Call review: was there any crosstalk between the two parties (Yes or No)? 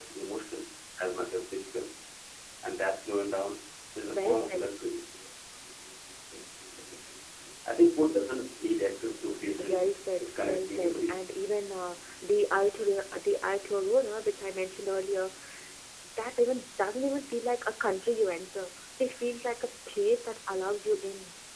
Yes